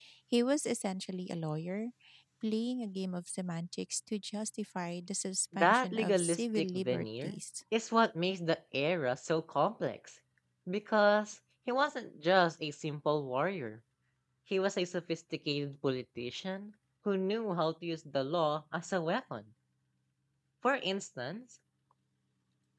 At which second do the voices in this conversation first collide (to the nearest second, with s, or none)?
6 s